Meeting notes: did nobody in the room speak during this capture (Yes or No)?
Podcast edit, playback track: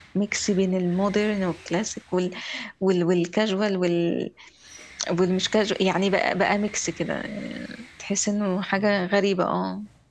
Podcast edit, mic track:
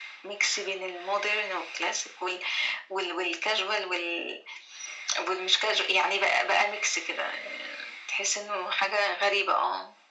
Yes